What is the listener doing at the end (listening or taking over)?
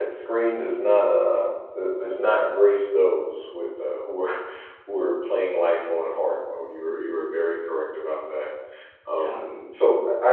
listening